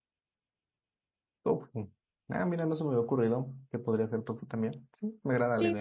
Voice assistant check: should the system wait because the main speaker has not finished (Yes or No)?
No